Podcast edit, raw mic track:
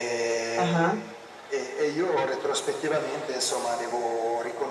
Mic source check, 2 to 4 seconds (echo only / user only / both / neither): echo only